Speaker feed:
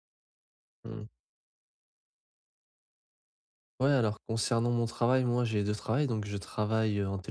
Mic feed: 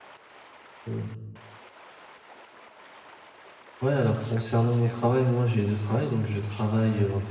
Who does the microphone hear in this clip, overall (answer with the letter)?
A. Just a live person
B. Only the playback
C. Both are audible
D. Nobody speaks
C